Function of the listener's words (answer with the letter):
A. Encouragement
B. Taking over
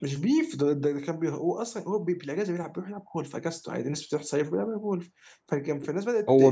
B